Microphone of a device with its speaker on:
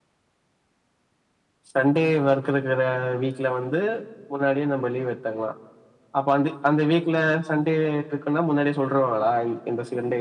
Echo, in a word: none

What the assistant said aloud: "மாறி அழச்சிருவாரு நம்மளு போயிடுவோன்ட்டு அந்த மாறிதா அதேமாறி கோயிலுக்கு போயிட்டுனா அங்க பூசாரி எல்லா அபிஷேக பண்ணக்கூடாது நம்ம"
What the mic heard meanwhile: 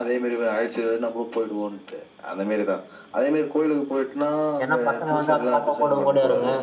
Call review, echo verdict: present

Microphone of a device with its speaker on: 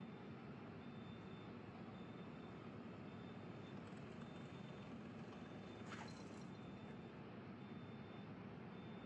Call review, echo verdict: none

